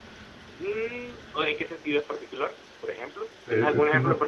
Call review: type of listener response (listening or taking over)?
taking over